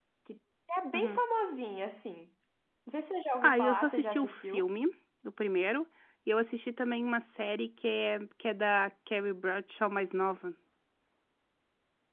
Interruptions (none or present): present